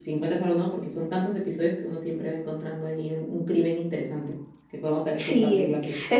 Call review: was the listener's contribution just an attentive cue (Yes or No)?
No